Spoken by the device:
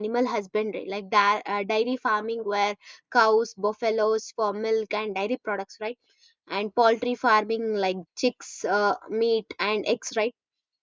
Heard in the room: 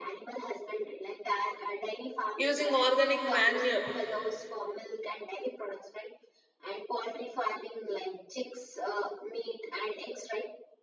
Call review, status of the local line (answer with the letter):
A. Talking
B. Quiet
A